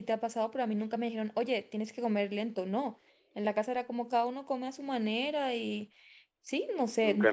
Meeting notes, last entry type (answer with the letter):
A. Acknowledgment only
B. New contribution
B